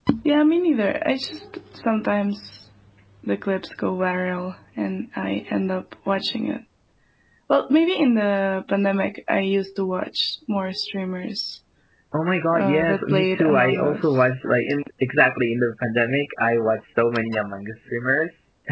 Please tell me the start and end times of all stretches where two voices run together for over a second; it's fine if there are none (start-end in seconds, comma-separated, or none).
12.6-14.2